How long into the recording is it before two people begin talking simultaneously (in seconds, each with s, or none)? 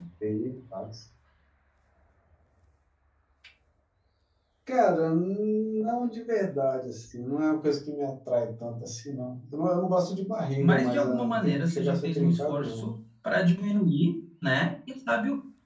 10.6 s